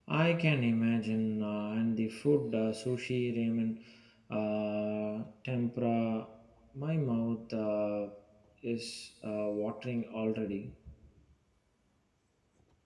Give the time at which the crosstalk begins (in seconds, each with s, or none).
none